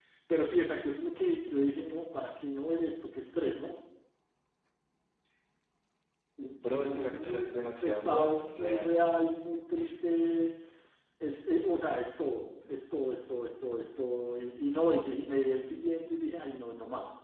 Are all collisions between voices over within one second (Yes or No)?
No